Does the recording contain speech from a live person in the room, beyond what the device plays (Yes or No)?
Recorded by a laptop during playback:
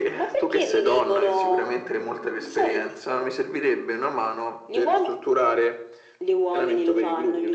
No